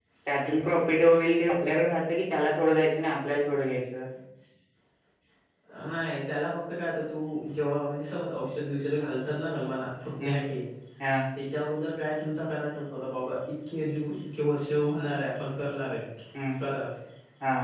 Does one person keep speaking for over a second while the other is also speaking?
No

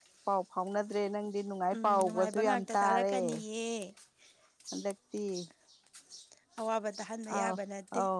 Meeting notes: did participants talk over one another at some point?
Yes, from 1.7 s

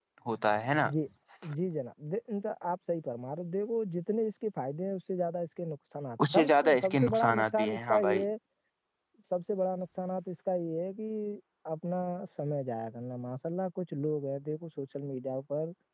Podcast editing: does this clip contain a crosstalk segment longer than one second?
Yes, from 6.2 s

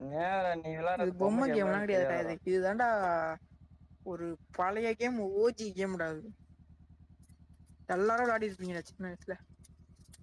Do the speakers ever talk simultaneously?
Yes, from 1.0 s

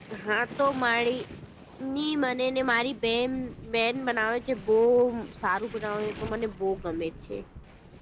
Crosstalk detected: No

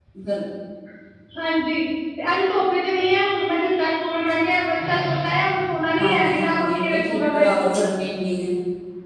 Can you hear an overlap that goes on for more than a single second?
Yes, from 6.0 s

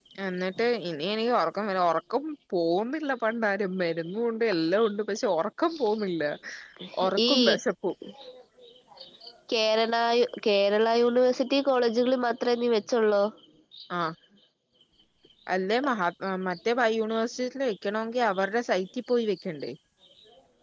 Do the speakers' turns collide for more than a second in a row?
No

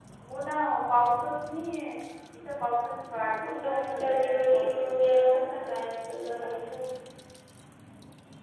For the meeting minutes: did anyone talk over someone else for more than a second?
Yes, from 3.7 s

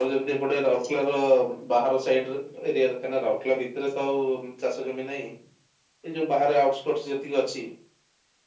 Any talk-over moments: No

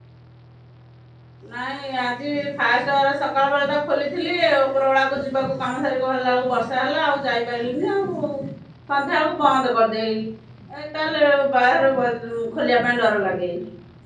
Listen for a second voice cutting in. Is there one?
No

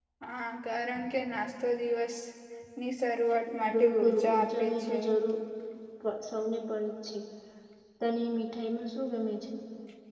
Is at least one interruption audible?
Yes, from 3.6 s

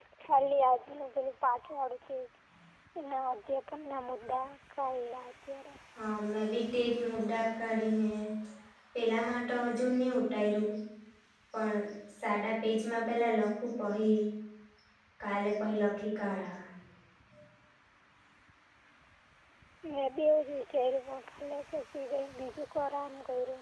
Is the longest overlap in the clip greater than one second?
No

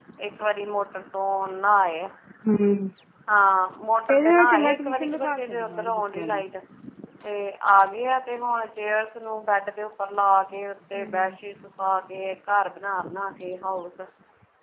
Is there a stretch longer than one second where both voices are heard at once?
Yes, from 4.1 s

